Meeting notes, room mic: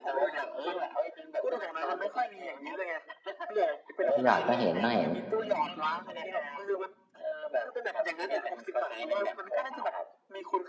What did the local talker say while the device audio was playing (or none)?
คุณหยอดก็เห็นก็เห็น